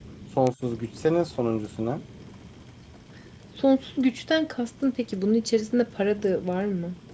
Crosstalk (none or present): none